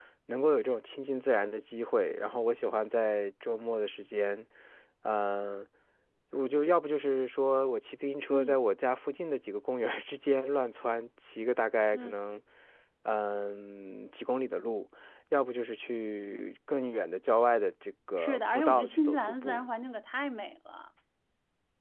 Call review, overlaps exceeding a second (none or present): present